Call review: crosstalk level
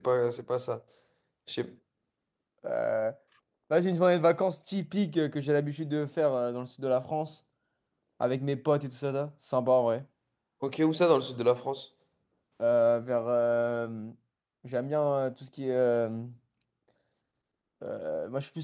none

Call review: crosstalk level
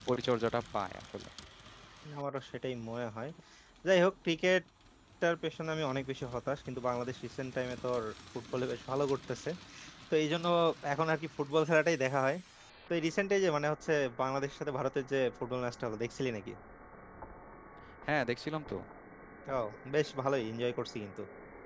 none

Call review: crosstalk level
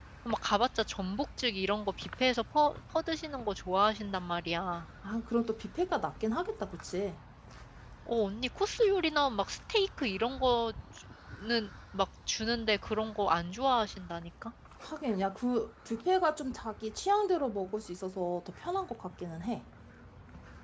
none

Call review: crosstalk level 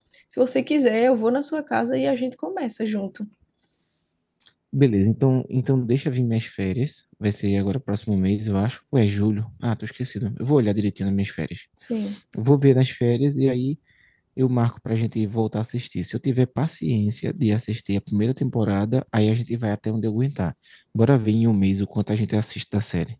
none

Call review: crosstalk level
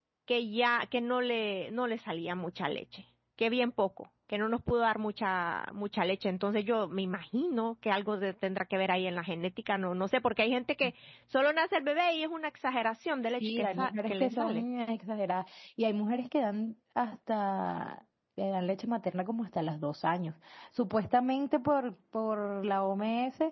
present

